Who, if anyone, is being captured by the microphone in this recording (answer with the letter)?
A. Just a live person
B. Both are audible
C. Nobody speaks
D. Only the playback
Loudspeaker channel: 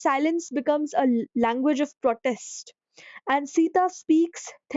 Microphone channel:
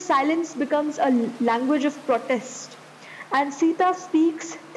D